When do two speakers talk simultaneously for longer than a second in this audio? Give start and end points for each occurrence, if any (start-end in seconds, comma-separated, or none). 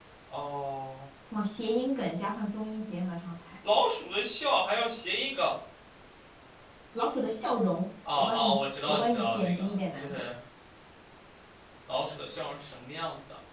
8.1-10.2